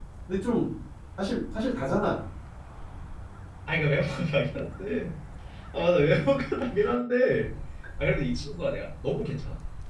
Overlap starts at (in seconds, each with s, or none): none